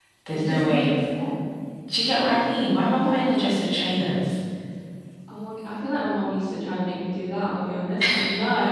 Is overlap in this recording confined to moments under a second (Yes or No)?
Yes